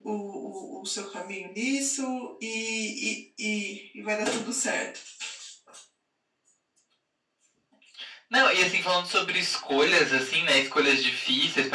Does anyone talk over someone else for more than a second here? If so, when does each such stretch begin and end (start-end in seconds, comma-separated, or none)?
none